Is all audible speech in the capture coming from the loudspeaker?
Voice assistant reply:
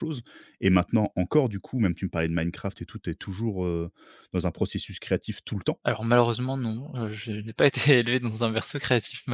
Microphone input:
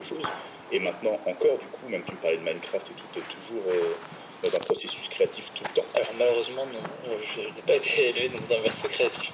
Yes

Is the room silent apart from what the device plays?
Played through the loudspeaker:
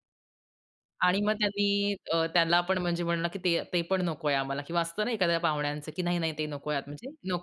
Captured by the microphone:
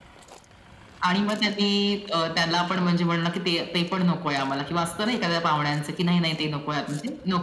Yes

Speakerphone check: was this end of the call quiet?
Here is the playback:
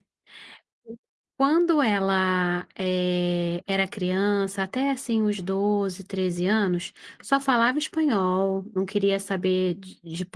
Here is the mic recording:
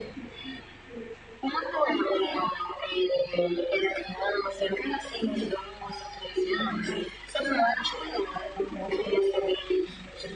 Yes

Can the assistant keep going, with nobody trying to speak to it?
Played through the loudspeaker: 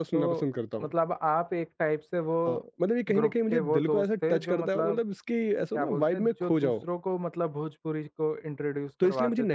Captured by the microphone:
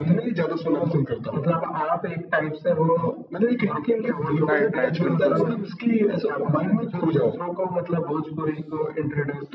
No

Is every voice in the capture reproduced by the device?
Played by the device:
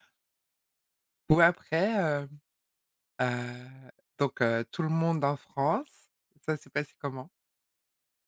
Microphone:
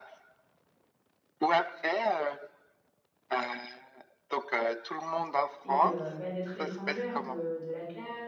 No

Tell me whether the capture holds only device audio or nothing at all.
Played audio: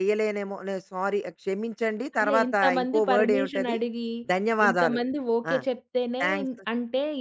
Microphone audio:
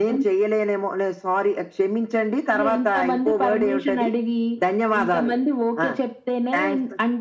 Yes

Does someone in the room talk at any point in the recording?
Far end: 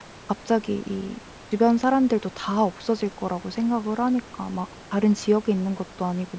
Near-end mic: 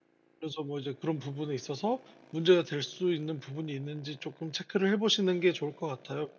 Yes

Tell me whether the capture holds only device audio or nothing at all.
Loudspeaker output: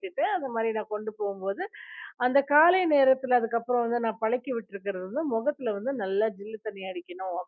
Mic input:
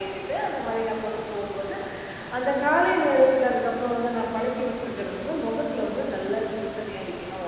Yes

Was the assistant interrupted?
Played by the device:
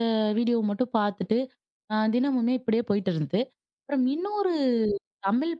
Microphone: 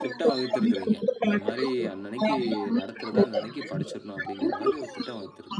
Yes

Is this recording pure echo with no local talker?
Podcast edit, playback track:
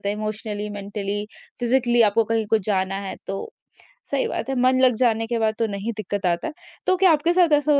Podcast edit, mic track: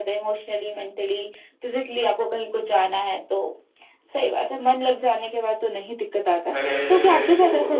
No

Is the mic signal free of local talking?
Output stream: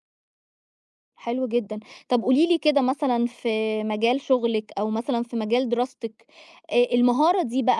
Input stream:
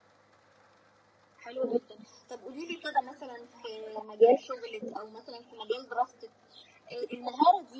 Yes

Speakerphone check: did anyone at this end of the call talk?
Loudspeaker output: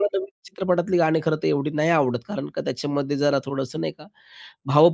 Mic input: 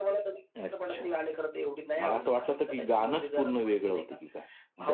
Yes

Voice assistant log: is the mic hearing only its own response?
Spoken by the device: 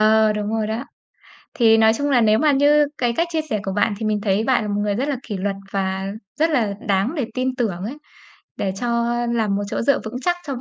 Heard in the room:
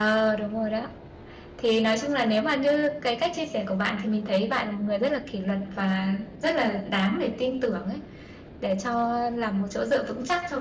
Yes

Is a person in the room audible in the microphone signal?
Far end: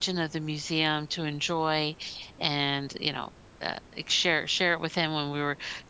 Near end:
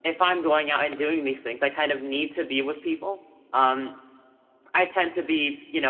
Yes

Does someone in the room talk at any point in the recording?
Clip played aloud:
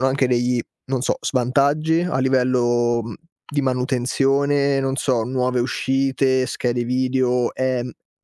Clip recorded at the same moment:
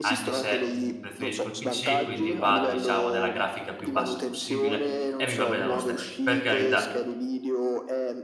Yes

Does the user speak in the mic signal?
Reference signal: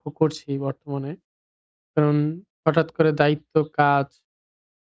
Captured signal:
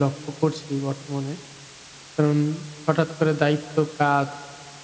No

